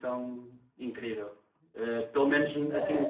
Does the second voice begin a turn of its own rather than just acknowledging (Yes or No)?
No